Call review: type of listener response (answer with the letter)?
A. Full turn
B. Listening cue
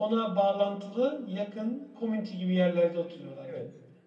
A